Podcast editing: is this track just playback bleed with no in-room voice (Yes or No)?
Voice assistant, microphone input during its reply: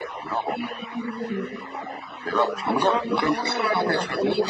No